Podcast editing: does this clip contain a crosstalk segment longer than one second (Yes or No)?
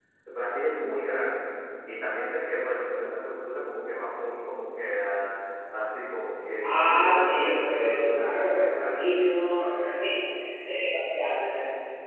Yes